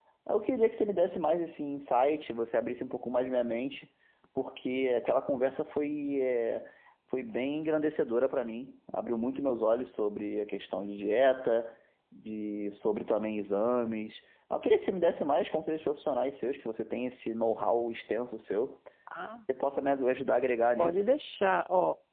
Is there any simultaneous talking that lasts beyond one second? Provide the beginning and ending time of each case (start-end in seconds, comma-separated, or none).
none